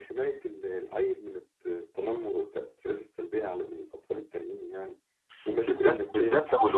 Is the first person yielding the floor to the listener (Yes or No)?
Yes